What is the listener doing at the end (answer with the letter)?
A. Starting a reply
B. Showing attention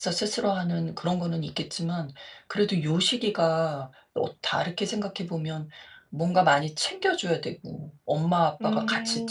B